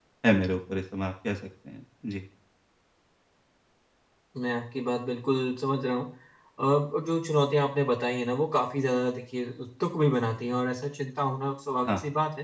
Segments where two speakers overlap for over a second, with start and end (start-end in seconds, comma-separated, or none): none